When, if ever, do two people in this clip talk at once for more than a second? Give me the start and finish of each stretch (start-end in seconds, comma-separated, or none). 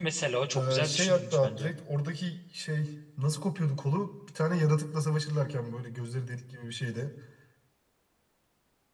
0.5-1.7